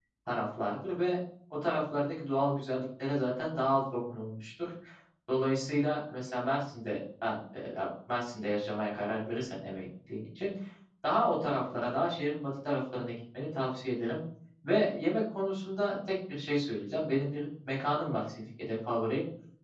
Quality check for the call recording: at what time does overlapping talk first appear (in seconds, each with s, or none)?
none